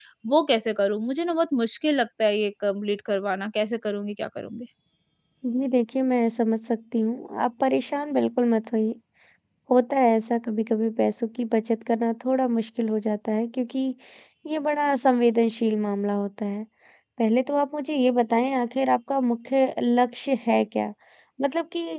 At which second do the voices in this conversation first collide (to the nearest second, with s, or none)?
none